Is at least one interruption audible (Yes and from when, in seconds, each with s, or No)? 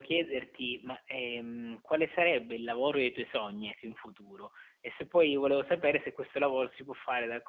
No